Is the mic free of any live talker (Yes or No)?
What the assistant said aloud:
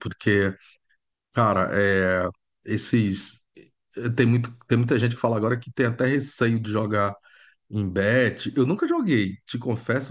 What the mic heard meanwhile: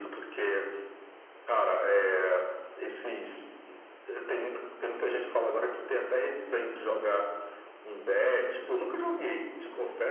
Yes